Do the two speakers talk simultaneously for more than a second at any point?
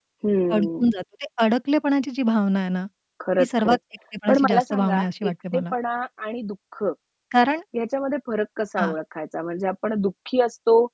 Yes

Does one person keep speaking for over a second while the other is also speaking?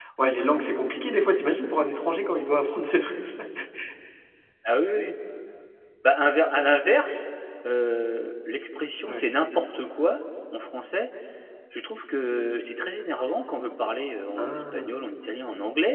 No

